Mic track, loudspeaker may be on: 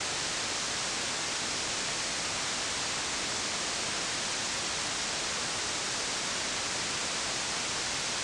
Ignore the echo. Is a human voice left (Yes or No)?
No